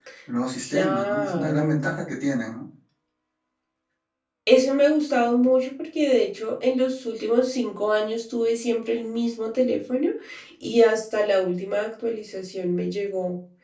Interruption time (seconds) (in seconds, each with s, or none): 0.6 s